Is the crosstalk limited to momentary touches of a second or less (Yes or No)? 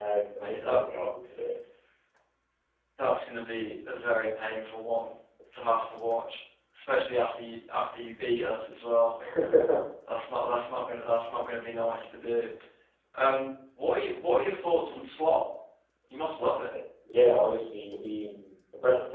Yes